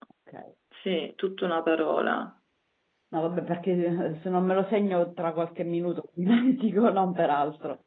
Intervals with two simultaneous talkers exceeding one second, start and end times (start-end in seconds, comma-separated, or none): none